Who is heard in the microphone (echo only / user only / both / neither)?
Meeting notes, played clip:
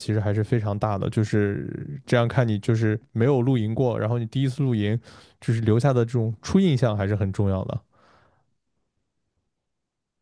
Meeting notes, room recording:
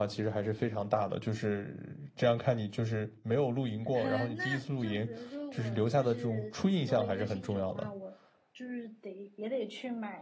both